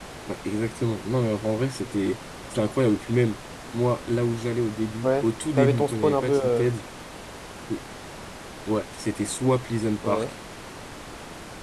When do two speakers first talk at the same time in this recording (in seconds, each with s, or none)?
5.0 s